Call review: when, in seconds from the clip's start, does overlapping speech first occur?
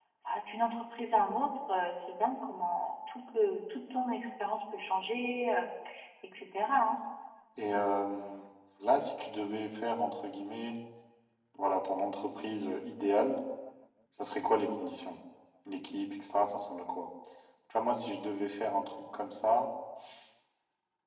none

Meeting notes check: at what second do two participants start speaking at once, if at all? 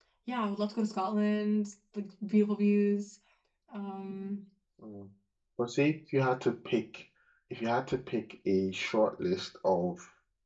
none

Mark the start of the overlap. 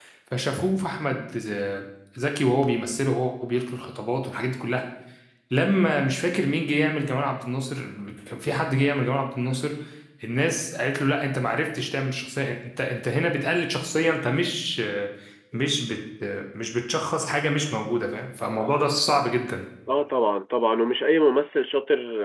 none

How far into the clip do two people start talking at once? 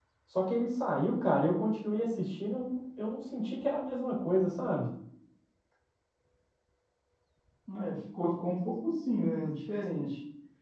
none

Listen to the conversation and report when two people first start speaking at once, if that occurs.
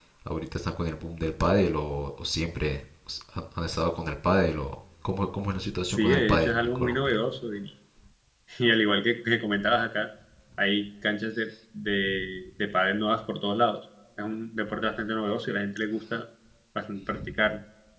5.8 s

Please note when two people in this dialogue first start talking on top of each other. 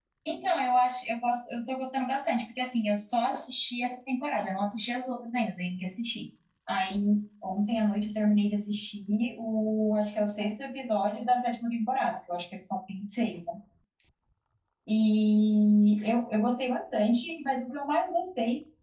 none

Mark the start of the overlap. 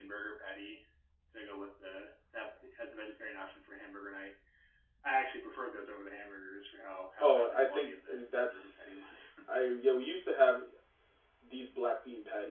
7.2 s

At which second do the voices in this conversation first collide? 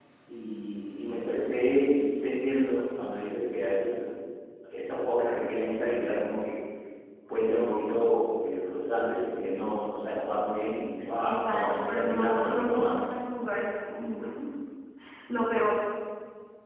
11.2 s

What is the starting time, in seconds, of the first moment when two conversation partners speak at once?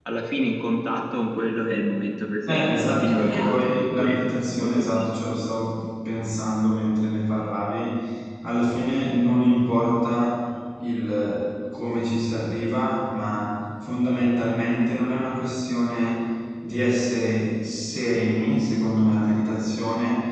2.5 s

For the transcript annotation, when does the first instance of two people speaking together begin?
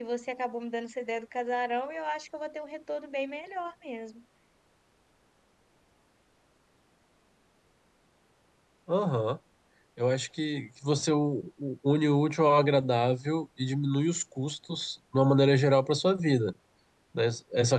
none

